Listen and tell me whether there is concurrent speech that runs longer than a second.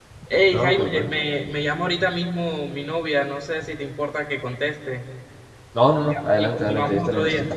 Yes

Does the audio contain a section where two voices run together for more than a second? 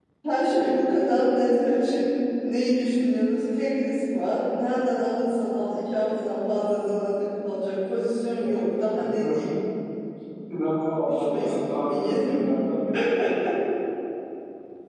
Yes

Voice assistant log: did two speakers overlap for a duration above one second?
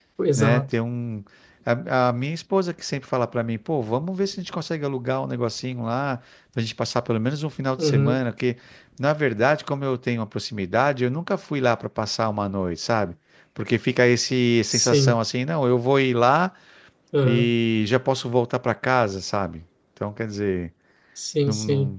No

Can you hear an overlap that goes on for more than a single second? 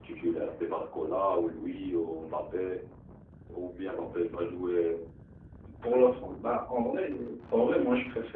No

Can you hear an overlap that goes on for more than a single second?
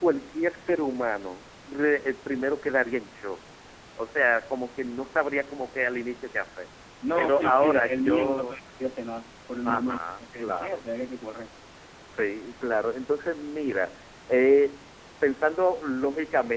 Yes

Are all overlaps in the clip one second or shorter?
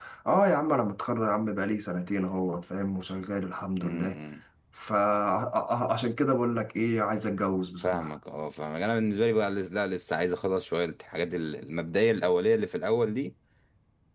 Yes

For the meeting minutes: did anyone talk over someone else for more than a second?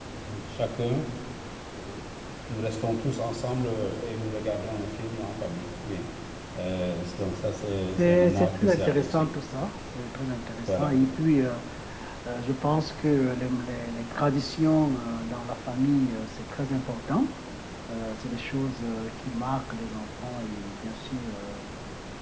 Yes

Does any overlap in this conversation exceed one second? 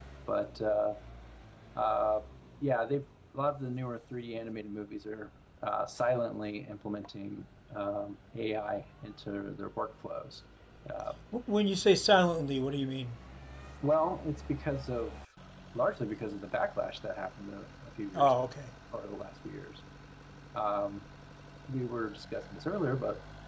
No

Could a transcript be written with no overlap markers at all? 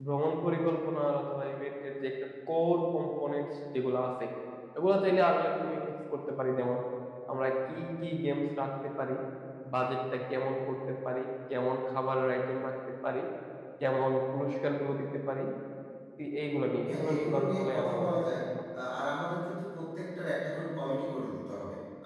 No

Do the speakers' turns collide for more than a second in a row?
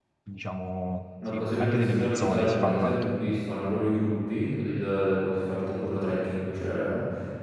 Yes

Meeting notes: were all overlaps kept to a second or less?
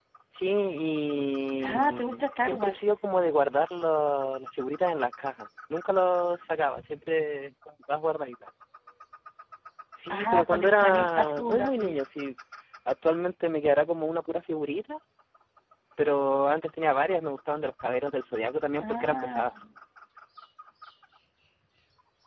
No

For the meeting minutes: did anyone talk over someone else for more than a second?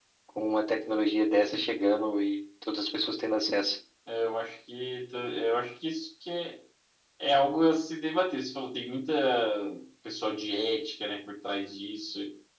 No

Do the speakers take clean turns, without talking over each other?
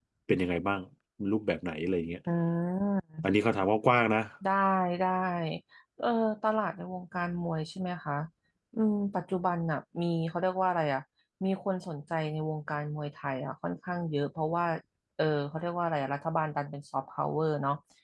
Yes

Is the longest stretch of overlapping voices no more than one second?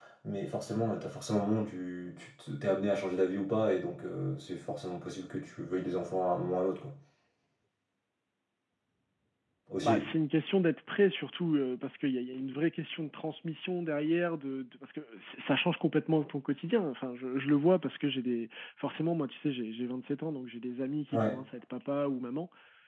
Yes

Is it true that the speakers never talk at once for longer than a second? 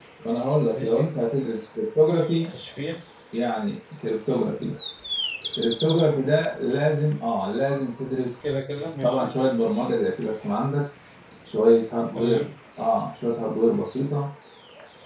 Yes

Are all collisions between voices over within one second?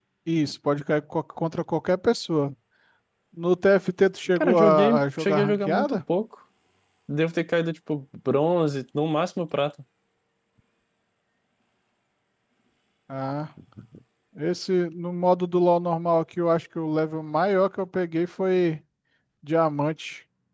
No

